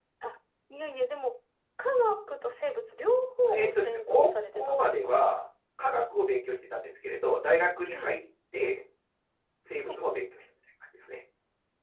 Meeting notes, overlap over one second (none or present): present